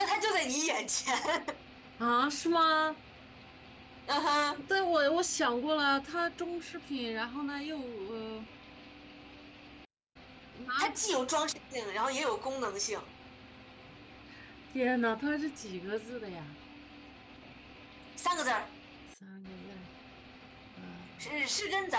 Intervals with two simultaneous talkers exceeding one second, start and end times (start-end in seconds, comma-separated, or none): none